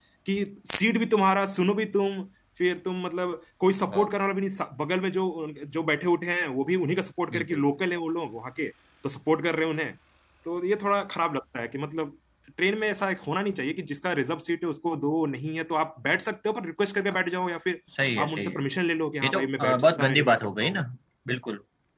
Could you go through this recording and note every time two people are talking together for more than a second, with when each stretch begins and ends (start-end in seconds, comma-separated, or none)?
19.2-20.8